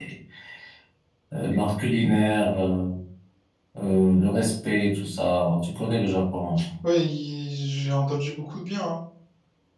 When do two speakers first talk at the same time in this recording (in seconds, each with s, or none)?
none